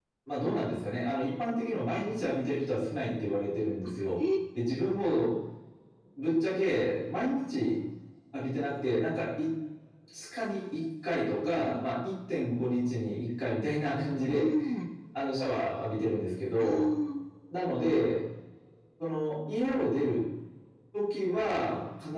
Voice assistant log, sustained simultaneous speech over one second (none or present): none